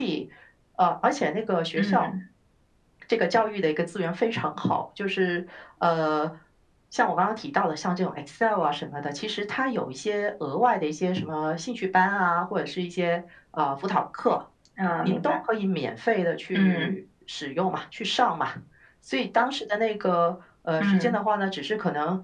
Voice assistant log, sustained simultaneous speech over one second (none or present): none